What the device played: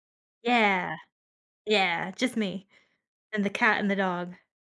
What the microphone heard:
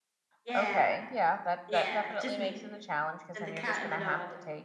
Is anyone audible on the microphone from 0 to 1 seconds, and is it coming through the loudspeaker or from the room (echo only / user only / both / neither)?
both